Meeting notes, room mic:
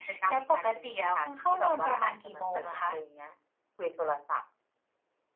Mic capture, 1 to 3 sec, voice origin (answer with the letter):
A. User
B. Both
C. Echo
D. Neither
C